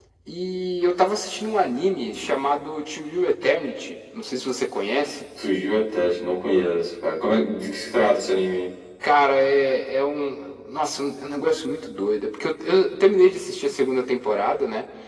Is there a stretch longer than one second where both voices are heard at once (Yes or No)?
No